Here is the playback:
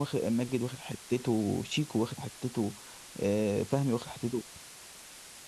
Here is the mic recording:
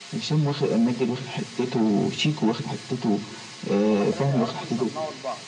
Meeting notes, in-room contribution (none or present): present